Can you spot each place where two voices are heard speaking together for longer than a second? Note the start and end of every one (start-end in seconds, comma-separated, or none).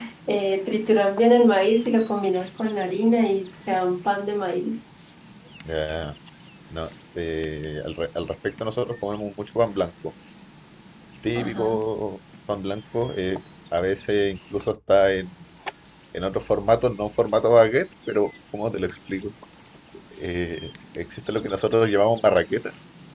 none